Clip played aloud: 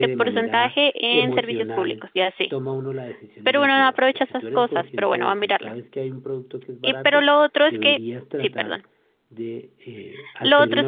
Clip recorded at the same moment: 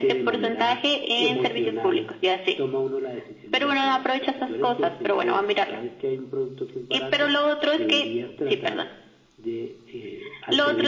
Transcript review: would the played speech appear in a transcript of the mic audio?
Yes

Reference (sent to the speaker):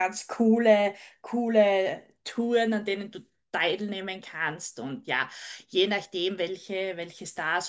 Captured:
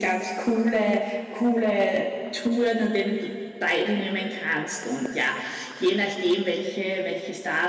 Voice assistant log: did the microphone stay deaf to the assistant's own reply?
No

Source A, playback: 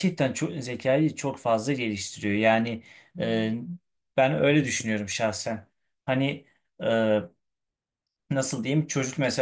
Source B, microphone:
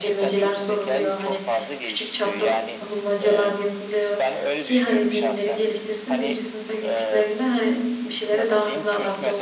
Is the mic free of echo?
No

